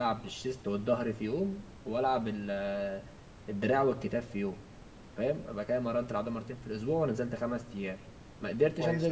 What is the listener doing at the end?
listening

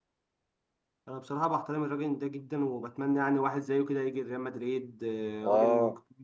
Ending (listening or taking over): taking over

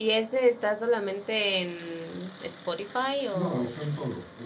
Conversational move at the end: taking over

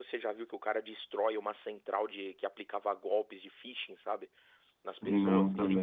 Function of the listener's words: listening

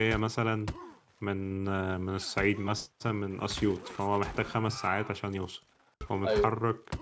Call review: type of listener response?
listening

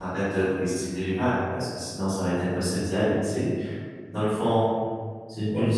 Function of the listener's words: listening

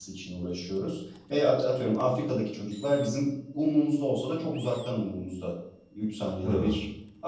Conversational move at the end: listening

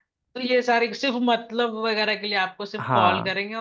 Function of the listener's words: listening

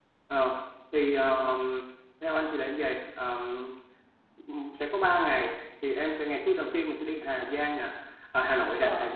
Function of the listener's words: listening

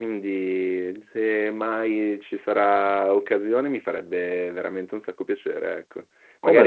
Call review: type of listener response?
listening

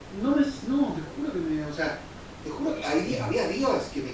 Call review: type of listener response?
listening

